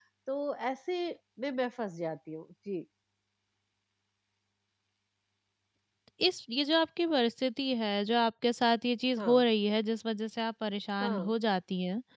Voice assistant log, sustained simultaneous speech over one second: none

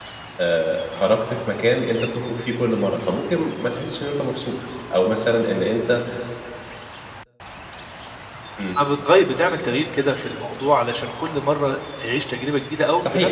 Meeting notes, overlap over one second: none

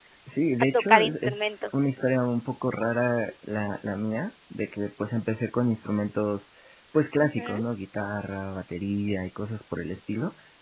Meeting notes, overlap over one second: present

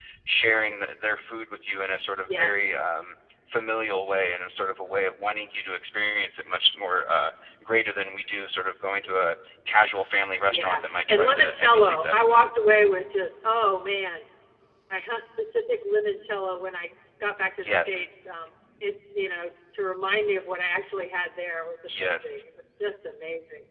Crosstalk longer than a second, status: present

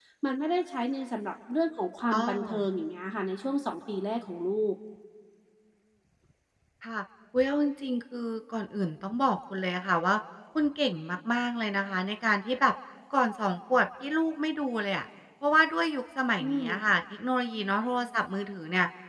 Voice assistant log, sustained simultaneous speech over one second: none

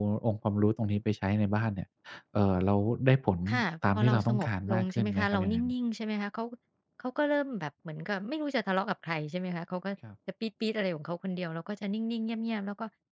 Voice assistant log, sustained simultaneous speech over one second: present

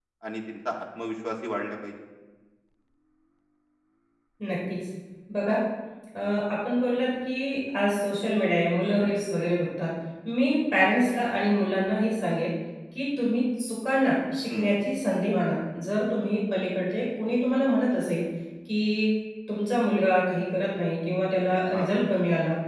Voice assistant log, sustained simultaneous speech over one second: none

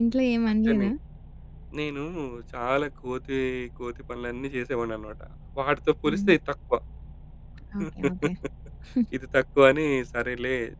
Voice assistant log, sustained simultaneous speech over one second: none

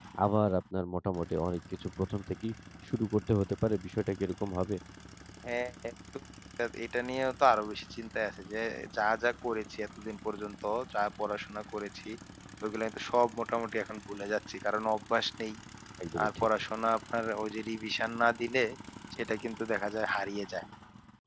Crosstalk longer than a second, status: none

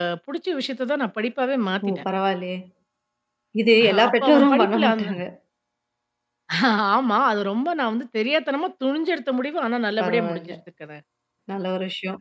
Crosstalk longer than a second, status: present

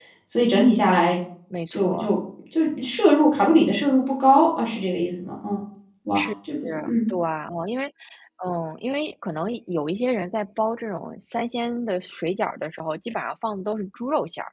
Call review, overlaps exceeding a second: none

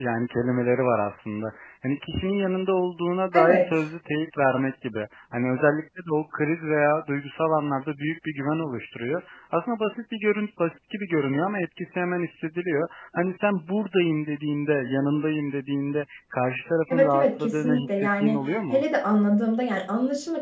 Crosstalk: present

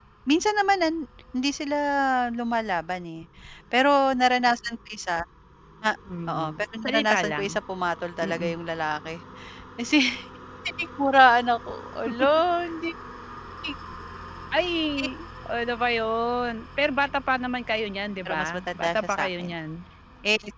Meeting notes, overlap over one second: present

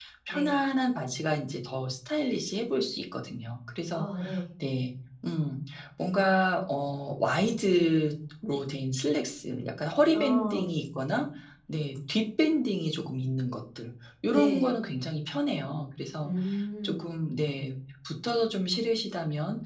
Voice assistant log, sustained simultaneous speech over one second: none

